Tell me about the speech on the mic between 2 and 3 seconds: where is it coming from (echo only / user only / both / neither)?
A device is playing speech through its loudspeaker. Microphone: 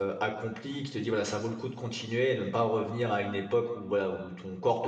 user only